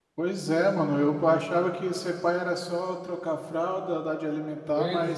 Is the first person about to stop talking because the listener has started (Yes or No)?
No